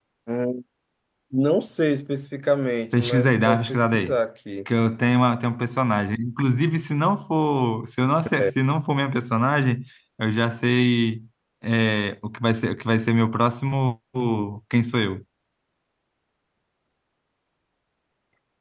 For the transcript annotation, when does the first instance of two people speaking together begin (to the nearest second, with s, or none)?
3 s